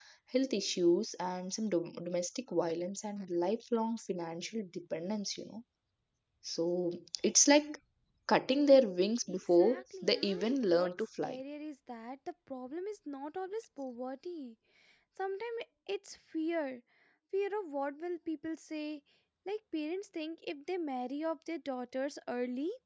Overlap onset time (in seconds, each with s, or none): 9.3 s